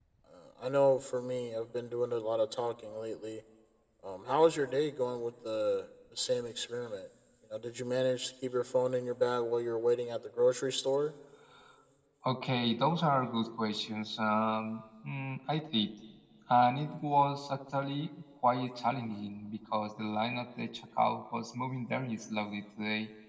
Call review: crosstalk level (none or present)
none